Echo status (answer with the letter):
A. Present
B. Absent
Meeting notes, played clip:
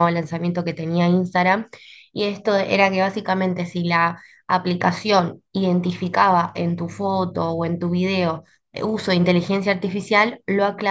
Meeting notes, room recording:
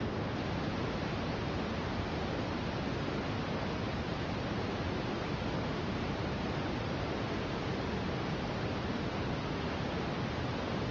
B